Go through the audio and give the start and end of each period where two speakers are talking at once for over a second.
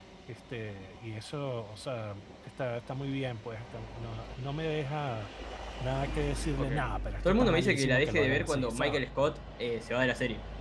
7.2-9.0

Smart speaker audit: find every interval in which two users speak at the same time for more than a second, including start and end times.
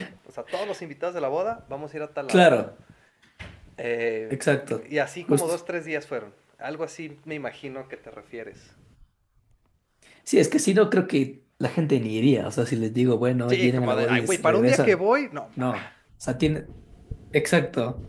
13.5-15.0

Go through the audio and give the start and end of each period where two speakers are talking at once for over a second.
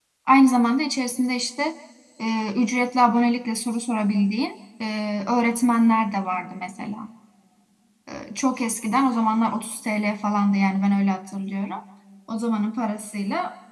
none

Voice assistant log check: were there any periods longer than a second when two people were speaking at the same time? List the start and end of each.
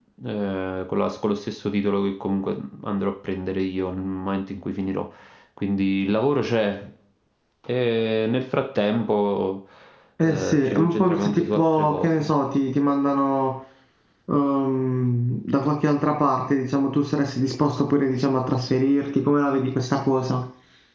10.2-12.3

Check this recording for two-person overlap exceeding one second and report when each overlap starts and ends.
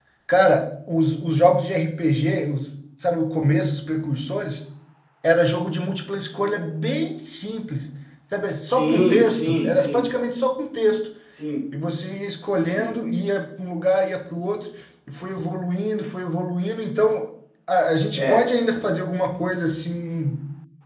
8.7-10.0

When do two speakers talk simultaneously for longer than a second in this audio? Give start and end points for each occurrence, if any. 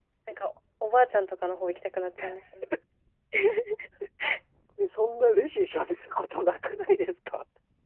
none

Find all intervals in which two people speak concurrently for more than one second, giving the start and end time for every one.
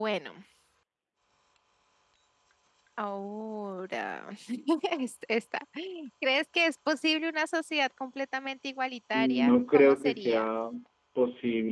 9.1-10.4

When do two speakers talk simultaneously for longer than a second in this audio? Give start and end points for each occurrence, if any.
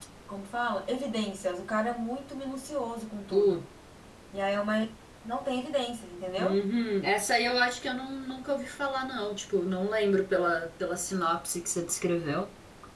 none

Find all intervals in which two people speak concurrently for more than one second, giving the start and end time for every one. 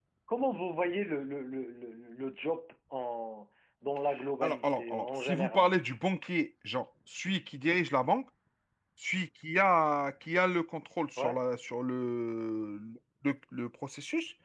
4.4-5.7

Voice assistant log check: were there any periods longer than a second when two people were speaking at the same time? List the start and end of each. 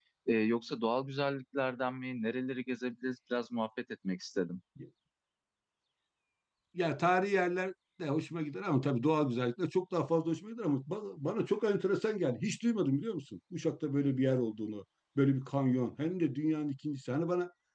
none

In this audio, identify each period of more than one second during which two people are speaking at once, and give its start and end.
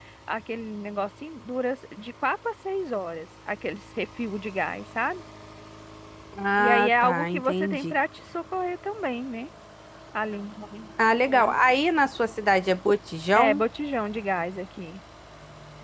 6.6-7.9

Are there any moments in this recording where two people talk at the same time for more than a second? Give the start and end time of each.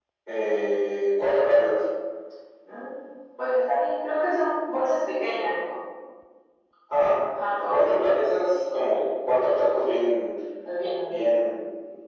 none

